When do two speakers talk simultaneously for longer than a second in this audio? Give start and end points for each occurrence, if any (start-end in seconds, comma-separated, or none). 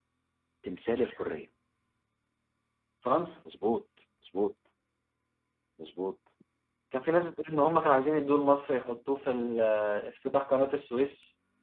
none